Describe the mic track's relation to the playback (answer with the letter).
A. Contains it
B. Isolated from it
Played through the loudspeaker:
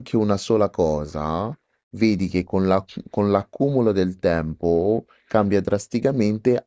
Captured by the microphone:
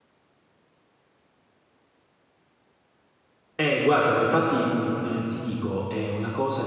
B